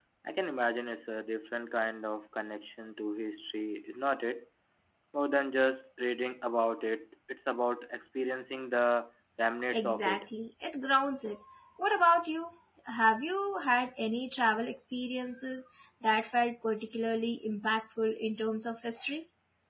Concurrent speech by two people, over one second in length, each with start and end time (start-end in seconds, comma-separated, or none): none